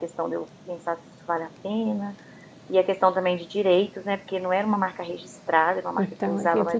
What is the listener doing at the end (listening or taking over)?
taking over